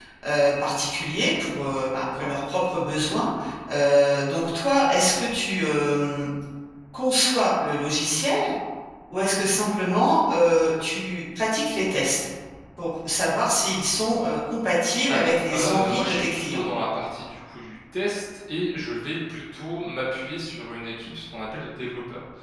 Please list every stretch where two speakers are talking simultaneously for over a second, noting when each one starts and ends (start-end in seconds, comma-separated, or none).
15.1-16.6